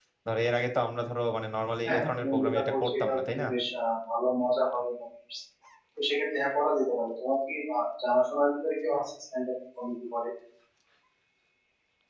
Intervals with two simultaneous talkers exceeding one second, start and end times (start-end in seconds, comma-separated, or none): 1.8-3.4